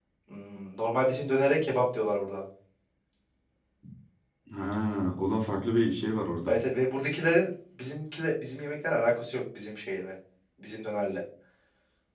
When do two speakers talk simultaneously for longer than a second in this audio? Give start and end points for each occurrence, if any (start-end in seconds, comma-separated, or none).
none